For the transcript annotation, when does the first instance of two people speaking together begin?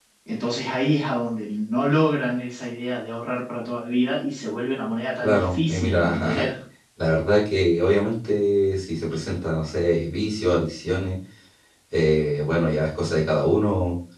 5.2 s

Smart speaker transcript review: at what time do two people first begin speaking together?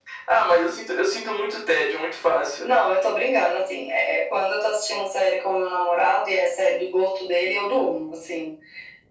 none

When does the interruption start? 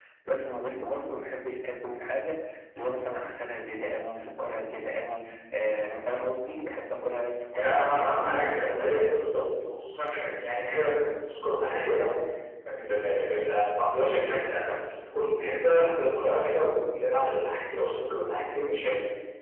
7.5 s

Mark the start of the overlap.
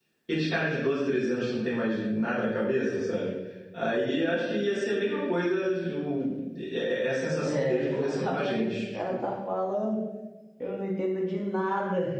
7.4 s

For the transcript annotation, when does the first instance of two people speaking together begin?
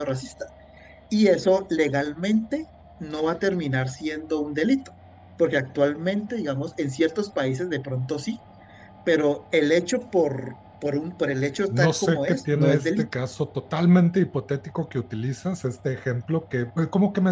11.7 s

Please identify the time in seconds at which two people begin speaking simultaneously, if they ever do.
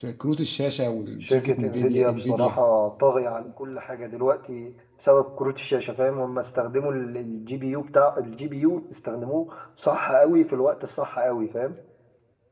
1.2 s

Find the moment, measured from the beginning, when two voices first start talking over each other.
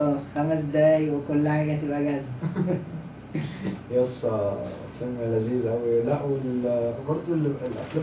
none

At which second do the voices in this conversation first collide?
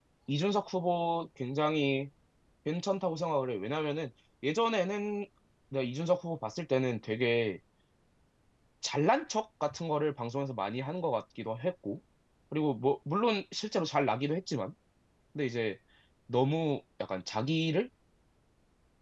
none

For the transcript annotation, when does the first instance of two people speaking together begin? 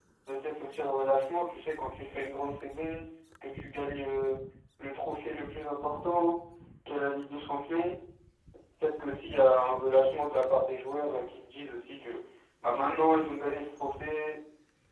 none

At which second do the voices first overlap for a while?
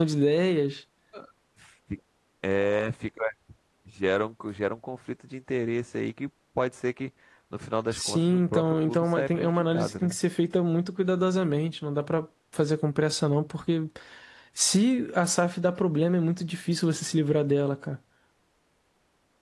7.9 s

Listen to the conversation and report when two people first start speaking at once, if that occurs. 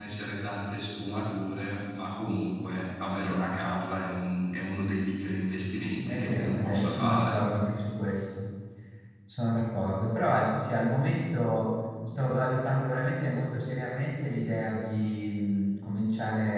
6.1 s

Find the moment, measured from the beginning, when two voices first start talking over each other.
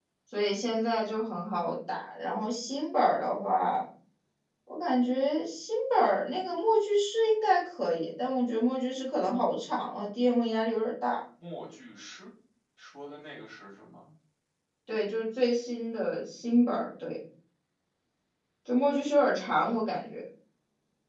none

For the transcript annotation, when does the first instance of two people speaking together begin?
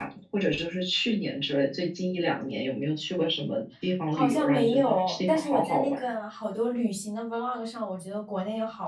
4.1 s

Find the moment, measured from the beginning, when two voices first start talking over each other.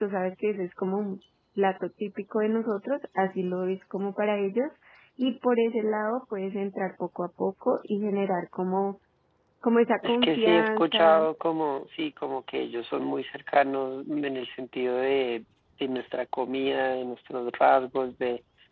10.0 s

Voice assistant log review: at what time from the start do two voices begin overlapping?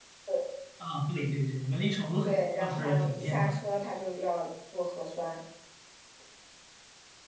2.2 s

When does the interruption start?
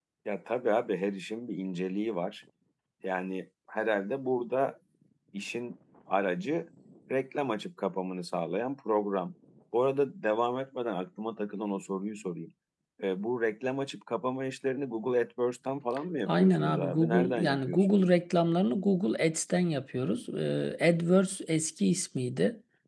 16.3 s

